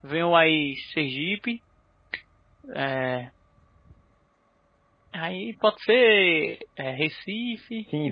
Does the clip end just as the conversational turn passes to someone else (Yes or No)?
Yes